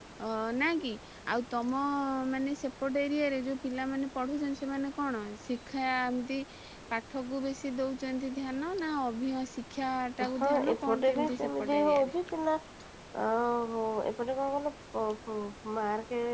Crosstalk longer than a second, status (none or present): present